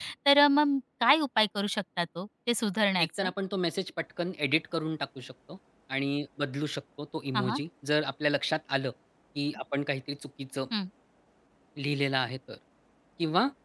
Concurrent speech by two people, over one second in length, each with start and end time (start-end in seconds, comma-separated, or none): none